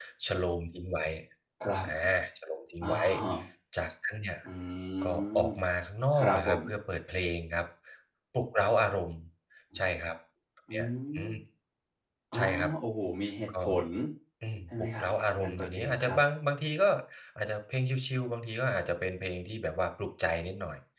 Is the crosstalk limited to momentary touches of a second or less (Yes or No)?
No